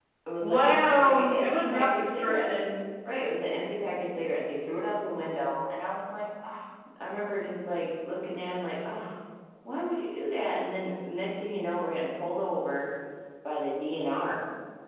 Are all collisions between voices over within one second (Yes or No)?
No